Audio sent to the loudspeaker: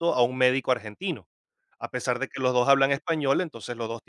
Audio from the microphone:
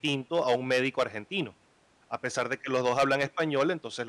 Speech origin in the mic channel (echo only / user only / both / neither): echo only